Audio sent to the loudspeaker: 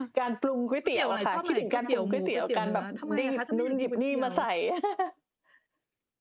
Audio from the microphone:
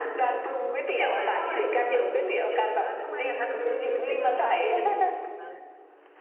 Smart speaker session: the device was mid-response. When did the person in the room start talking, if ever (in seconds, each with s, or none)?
3.8 s